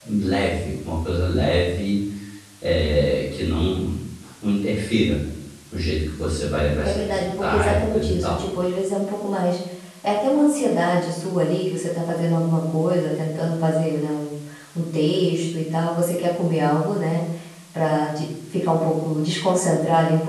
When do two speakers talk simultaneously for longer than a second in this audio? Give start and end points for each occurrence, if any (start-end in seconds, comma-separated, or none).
6.8-8.4